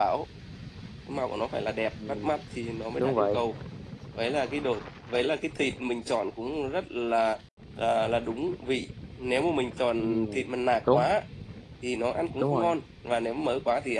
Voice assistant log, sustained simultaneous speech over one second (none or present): none